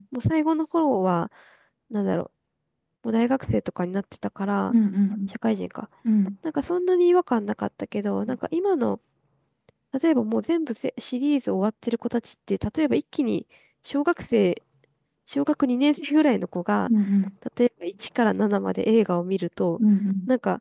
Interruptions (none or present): none